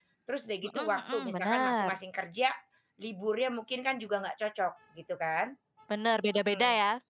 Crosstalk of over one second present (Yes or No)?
Yes